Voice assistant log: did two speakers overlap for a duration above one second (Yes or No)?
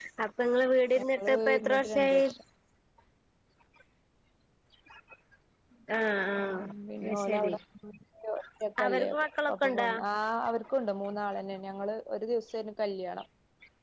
Yes